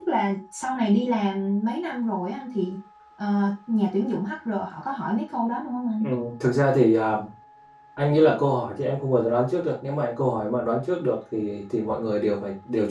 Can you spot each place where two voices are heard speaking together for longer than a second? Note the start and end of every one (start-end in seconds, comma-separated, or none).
none